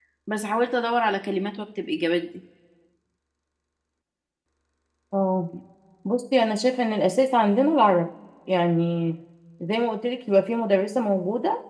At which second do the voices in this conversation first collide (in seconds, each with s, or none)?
none